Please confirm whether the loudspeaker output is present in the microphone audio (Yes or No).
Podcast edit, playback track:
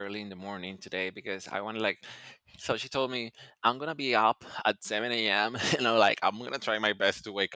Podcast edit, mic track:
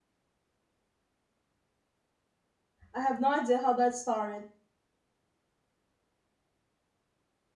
No